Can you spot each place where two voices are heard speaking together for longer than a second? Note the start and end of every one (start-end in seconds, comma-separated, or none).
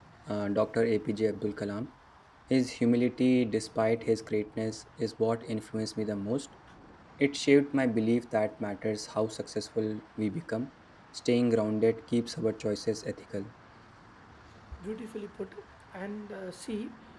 none